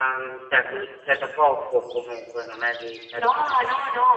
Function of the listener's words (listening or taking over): taking over